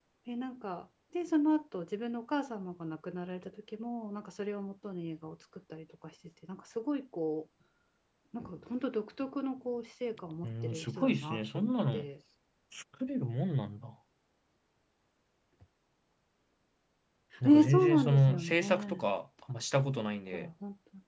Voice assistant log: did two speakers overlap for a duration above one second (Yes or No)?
Yes